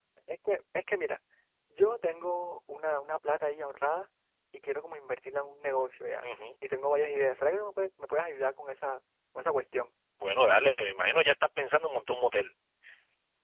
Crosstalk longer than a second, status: none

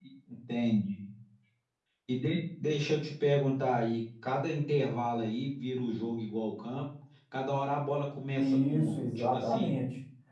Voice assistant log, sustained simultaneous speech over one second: present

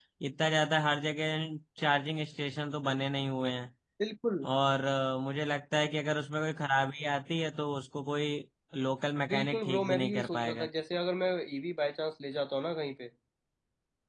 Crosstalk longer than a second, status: present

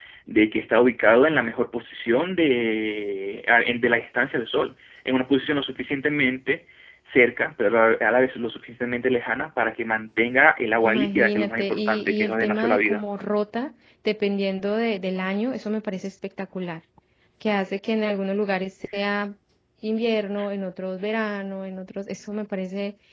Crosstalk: present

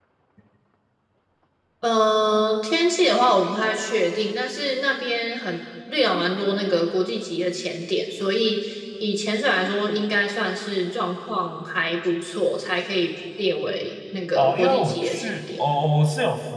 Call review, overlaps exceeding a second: present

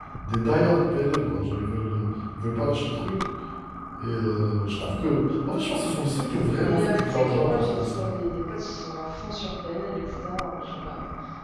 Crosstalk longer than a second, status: present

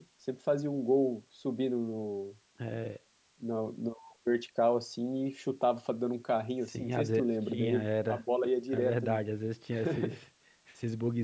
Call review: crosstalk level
present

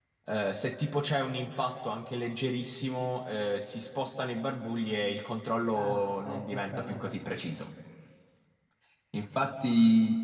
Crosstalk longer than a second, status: present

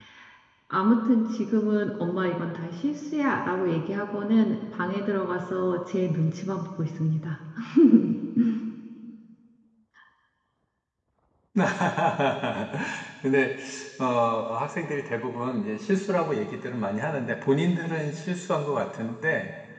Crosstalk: none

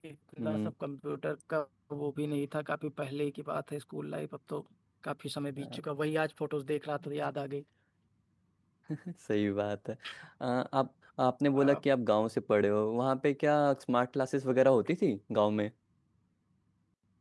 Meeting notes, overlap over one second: none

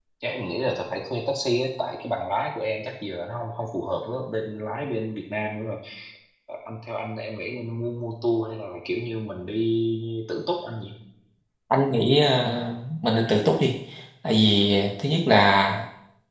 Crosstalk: none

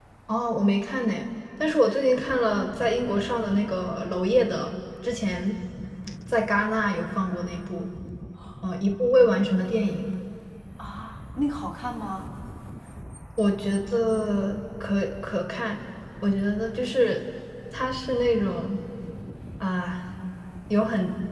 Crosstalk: none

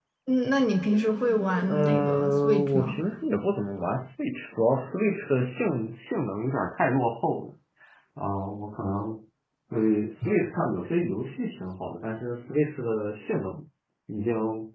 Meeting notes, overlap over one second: present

